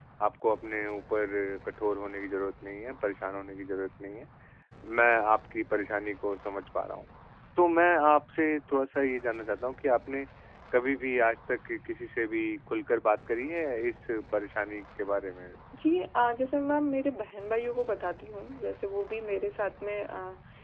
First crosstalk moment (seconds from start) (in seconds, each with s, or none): none